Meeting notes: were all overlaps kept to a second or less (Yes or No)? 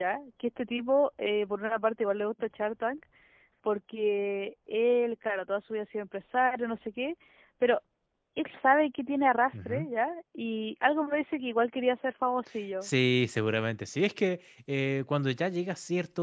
Yes